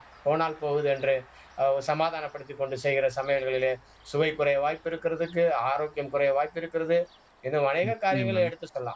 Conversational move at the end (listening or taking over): listening